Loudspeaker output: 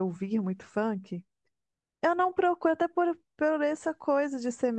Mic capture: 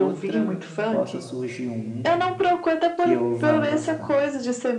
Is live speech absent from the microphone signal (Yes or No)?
No